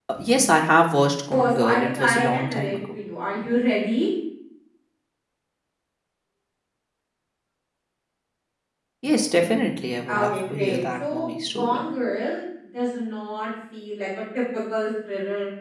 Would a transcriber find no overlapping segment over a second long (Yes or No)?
No